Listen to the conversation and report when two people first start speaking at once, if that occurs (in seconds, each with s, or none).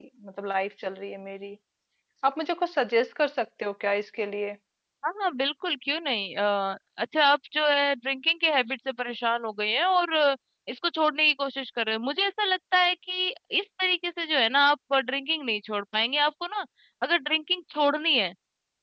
none